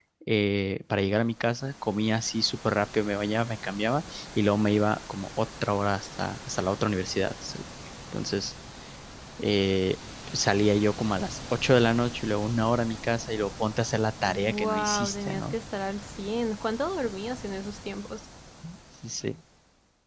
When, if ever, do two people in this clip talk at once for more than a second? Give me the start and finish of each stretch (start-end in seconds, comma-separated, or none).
14.3-15.5